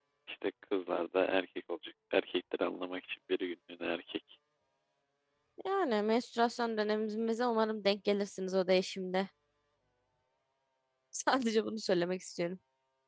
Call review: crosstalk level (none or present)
none